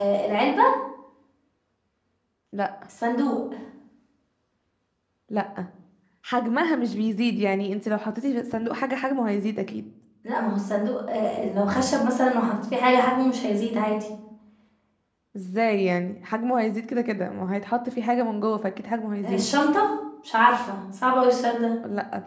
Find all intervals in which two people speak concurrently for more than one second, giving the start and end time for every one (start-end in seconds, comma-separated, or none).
none